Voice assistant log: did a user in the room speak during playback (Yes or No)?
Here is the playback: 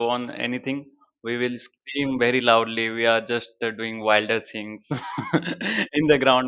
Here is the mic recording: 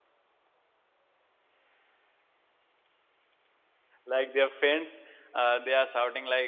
Yes